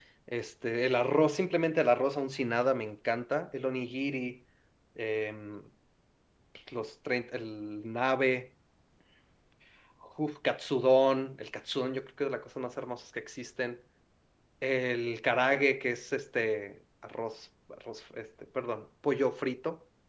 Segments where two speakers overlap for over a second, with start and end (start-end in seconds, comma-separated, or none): none